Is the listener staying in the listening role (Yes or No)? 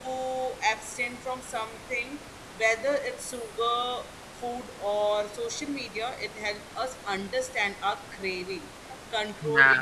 Yes